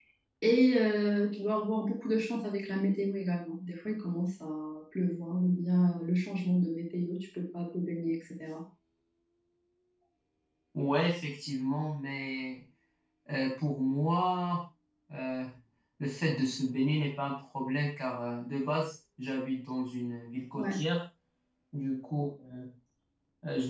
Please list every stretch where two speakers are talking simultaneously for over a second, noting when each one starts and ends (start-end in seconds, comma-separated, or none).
none